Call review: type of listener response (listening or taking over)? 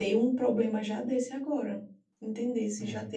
listening